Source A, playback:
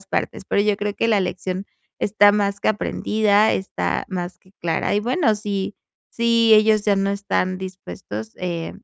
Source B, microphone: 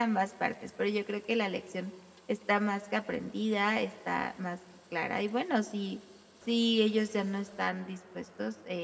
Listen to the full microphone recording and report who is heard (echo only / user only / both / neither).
echo only